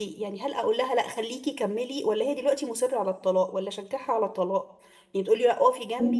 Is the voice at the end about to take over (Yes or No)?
No